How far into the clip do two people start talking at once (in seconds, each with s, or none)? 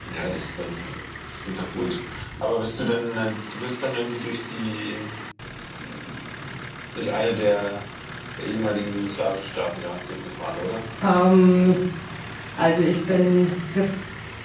none